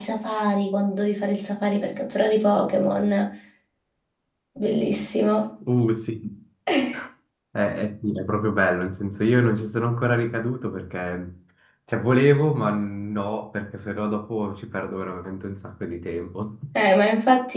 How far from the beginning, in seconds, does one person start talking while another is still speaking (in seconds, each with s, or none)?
none